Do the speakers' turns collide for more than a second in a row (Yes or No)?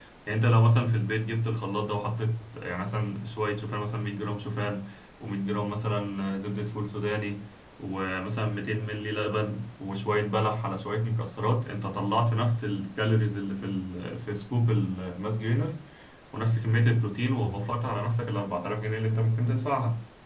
No